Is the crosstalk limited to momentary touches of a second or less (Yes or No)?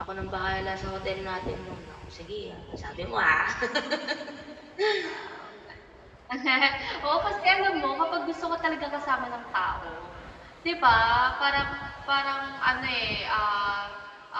Yes